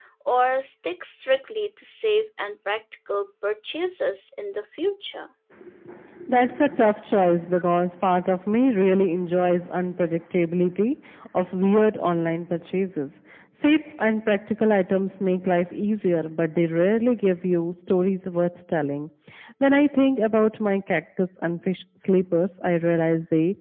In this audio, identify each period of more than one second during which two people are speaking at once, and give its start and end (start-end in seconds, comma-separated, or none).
none